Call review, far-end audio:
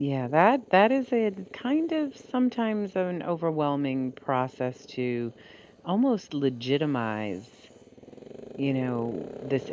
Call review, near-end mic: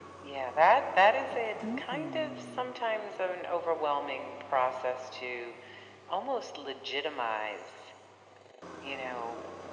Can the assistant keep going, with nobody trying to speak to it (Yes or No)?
No